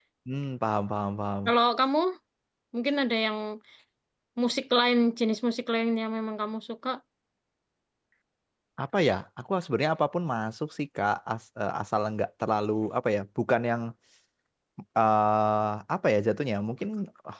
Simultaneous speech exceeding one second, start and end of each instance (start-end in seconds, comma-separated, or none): none